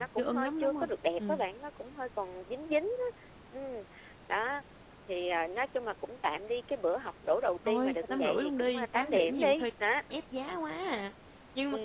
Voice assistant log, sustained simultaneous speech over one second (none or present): present